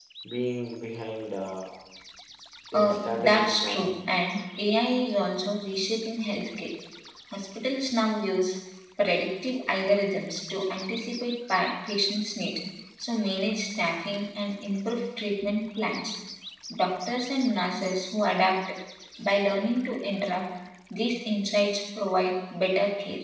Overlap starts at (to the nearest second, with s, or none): 3 s